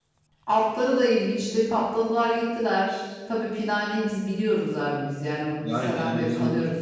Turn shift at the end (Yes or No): Yes